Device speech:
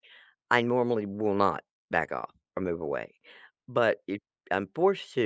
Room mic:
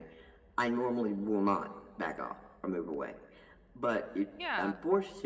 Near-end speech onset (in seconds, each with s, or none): 4.3 s